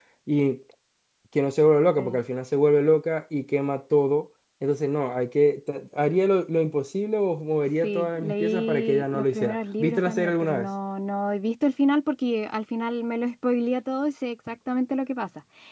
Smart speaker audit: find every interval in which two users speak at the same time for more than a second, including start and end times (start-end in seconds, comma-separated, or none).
7.8-10.7